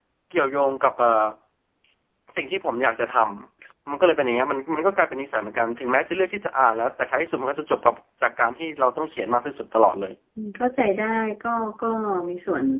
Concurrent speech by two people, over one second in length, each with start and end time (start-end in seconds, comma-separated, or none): none